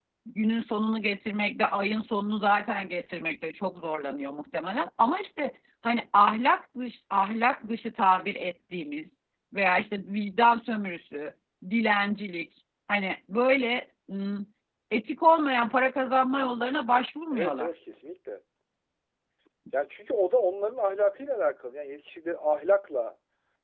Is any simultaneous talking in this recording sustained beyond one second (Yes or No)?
No